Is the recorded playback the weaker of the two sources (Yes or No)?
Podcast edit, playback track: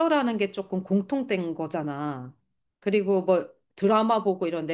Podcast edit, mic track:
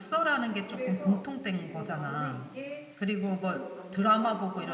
No